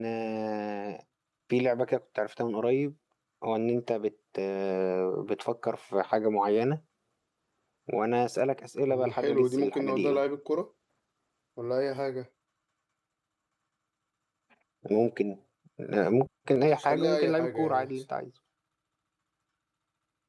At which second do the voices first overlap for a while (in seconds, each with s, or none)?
8.9 s